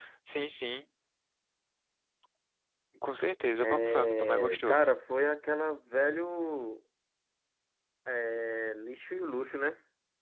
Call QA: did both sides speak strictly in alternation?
No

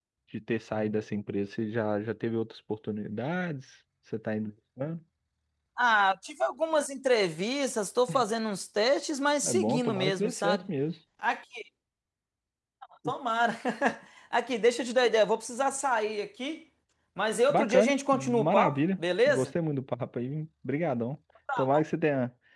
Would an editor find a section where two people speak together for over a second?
Yes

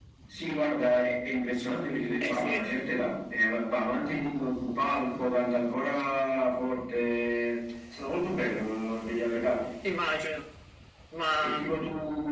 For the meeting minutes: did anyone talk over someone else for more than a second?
No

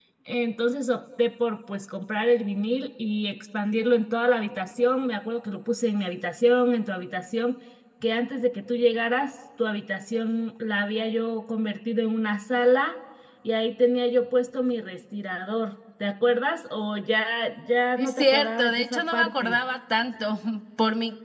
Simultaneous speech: Yes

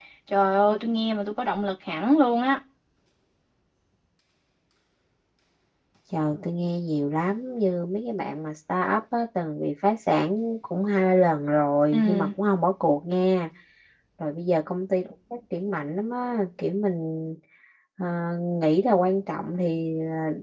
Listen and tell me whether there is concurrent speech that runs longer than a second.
No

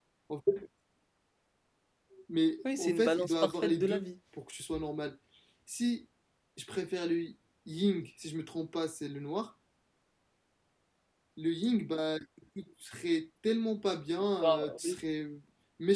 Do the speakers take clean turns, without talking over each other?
No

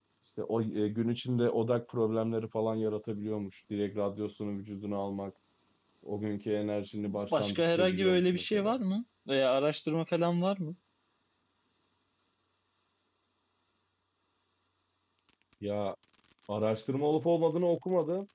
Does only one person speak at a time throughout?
No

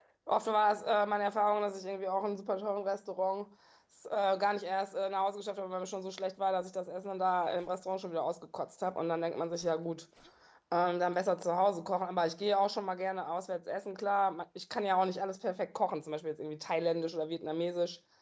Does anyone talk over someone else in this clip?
No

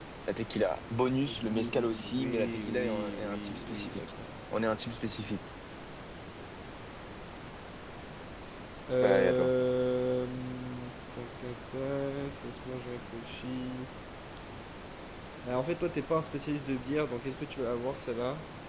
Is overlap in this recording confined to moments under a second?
No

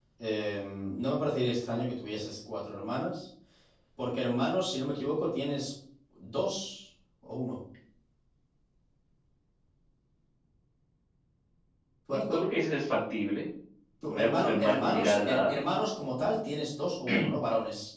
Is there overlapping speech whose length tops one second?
Yes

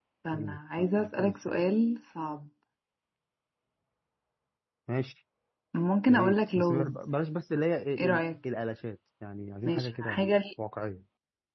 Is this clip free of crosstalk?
No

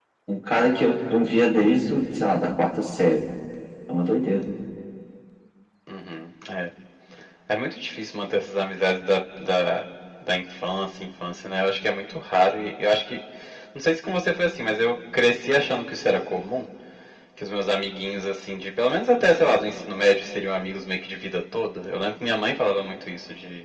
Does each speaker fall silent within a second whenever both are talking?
Yes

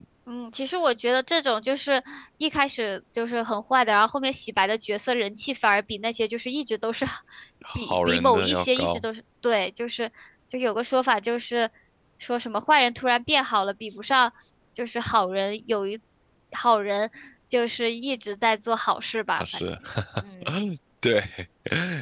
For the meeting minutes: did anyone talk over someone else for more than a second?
Yes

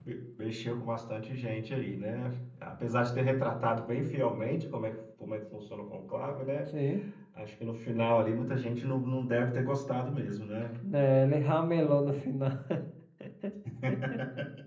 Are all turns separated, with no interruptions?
Yes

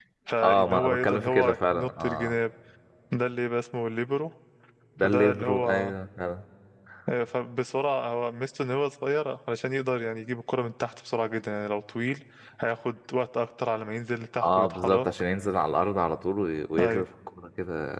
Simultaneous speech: Yes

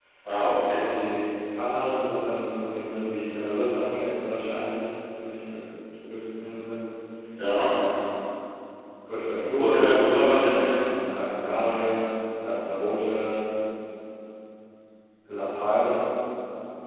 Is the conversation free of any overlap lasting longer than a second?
No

